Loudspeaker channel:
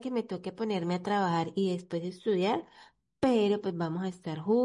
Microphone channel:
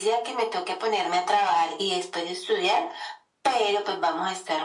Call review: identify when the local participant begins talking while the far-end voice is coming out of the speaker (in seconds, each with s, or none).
none